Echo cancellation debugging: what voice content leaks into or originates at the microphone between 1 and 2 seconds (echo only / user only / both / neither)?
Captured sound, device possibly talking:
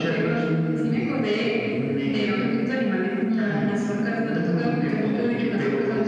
both